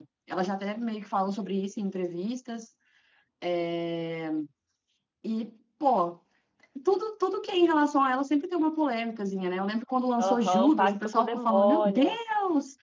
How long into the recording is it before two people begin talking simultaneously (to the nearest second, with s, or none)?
10 s